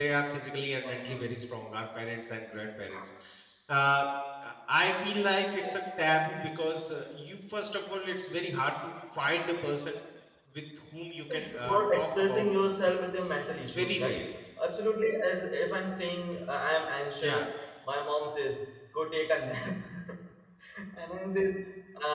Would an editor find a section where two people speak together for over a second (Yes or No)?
Yes